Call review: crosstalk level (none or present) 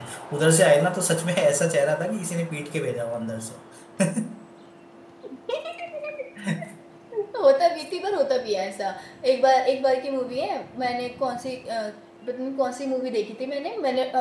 none